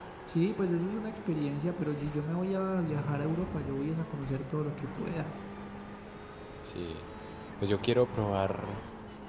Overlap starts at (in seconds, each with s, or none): none